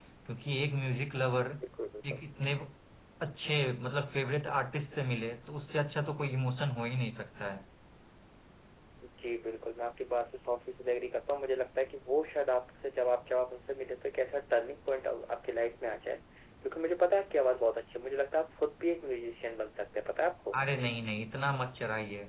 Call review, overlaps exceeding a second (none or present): none